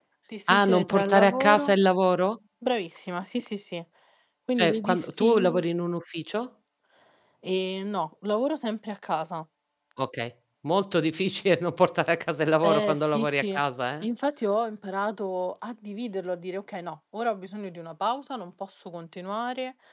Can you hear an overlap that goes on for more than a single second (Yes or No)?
Yes